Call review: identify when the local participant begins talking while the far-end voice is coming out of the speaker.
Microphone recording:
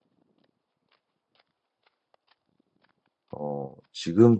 3.3 s

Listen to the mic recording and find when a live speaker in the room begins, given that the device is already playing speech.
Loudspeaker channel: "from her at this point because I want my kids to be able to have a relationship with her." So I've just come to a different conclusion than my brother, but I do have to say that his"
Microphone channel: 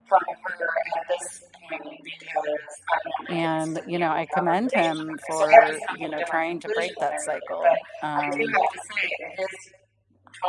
3.3 s

